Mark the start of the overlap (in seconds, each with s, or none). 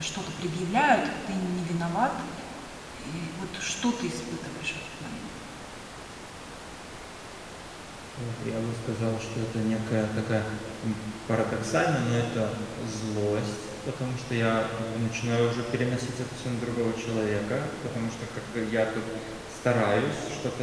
none